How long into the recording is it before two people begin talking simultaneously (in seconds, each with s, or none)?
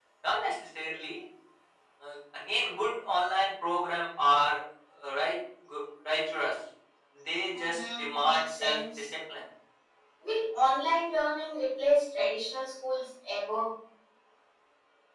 7.5 s